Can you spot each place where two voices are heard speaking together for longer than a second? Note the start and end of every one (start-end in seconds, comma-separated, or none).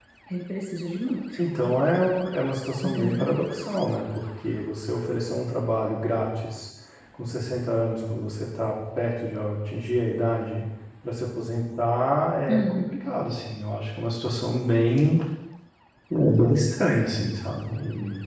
none